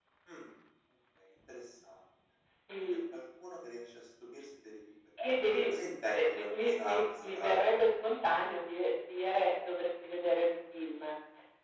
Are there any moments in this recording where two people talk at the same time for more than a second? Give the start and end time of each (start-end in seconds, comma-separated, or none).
6.1-7.6